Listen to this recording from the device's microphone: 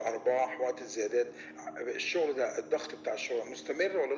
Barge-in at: none

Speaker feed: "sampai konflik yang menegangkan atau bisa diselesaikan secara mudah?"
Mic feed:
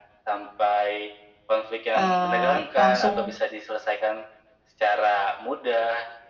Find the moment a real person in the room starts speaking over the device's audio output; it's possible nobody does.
2 s

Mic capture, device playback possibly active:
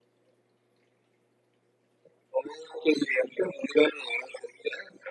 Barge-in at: none

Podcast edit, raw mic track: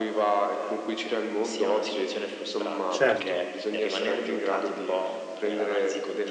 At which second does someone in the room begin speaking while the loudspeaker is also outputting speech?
3 s

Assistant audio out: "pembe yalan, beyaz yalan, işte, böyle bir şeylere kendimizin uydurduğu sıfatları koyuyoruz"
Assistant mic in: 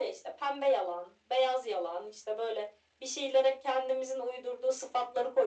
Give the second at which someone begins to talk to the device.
none

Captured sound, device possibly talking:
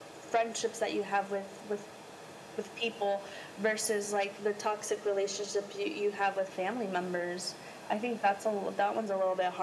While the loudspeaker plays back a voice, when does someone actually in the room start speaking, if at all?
none

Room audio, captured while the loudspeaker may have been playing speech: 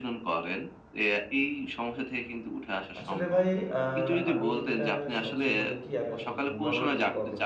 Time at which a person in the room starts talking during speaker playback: 3 s

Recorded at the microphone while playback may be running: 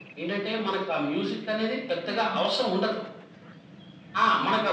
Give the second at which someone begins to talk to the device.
2 s

